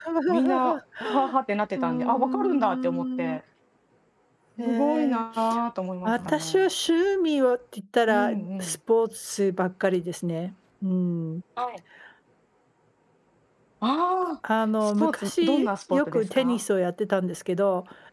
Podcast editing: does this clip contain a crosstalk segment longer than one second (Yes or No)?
Yes